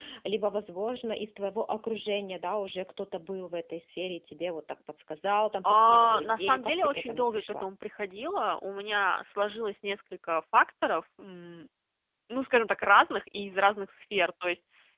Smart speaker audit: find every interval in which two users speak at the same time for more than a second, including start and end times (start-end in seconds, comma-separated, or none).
5.6-7.7